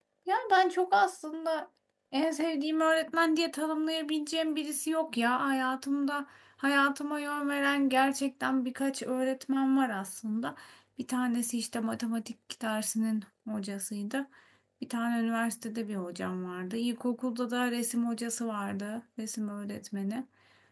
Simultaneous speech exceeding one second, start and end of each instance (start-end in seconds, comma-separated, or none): none